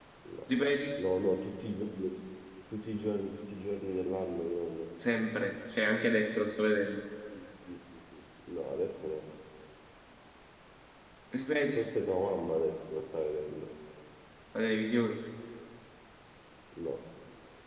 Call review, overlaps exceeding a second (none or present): none